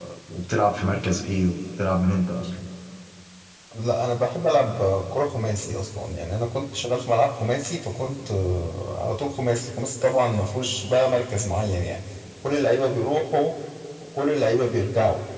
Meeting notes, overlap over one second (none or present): none